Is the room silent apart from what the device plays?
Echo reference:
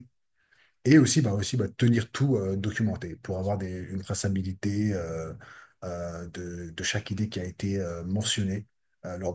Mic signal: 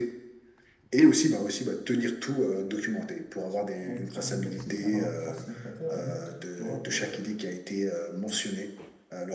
No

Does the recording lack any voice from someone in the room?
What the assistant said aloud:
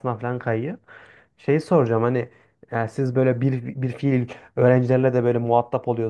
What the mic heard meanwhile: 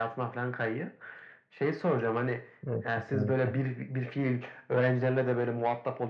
No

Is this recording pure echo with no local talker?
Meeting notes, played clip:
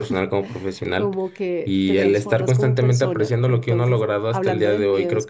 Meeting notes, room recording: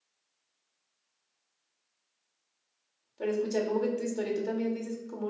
No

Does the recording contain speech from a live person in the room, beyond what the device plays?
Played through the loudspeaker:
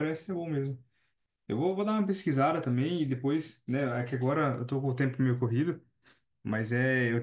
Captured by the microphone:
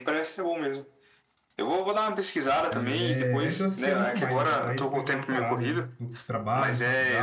Yes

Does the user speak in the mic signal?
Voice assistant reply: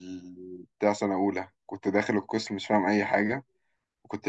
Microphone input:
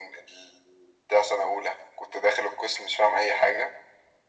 No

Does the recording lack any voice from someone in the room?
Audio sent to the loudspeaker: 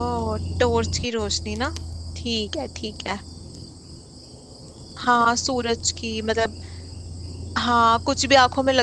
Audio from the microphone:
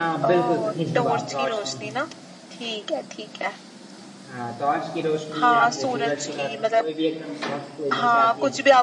No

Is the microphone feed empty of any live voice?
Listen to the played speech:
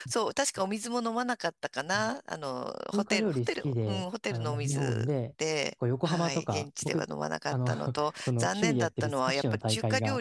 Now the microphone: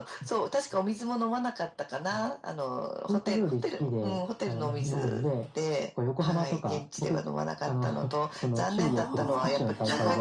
No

